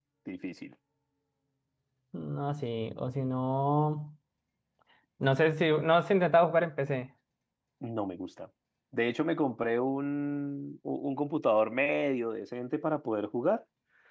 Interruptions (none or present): none